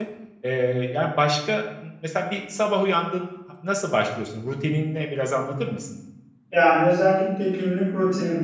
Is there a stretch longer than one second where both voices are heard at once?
No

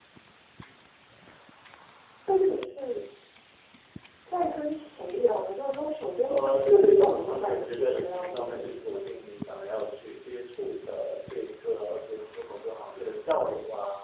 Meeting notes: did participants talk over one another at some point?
Yes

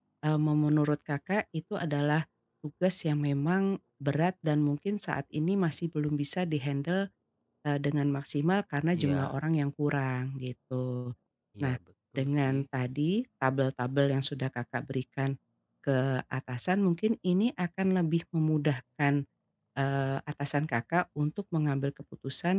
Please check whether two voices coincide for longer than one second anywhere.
No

